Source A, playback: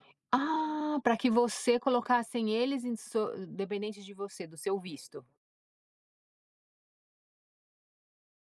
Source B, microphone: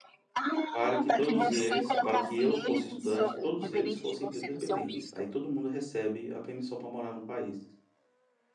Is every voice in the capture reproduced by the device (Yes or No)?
No